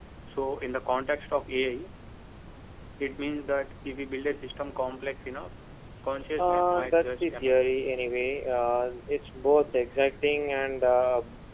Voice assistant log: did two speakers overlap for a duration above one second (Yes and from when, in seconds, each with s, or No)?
Yes, from 6.4 s